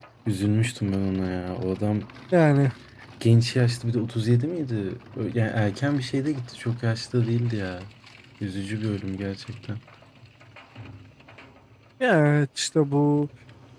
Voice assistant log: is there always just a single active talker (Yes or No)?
Yes